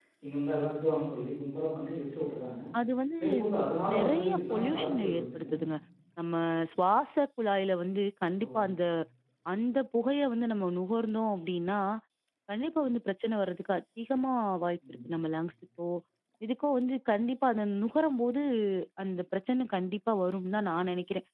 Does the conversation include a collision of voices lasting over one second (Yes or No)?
Yes